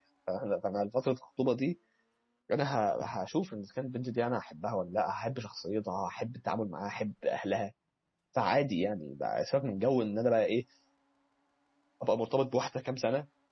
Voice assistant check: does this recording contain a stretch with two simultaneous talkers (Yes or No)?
No